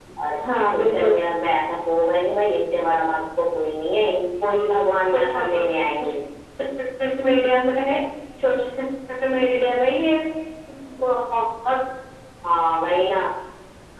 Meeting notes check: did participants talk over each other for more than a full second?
No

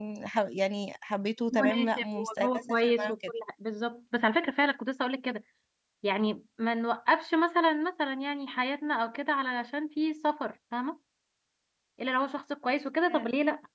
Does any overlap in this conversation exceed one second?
Yes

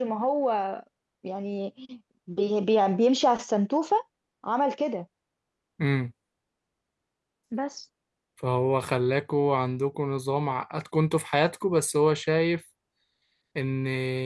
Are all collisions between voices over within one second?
Yes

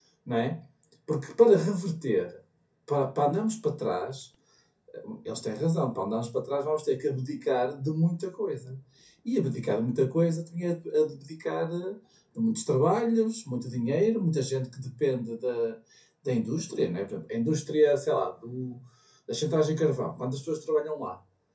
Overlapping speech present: No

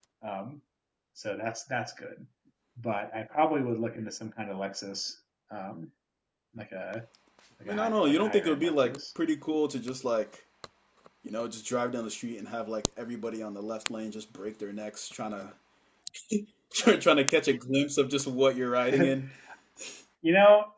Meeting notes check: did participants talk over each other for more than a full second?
Yes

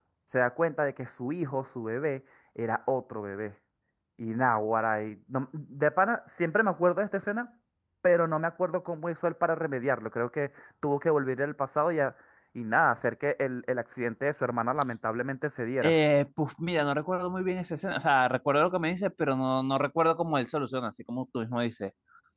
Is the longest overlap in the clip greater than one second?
No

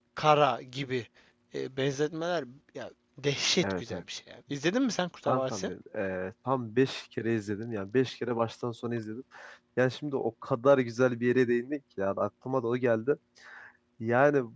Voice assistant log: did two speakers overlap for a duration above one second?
No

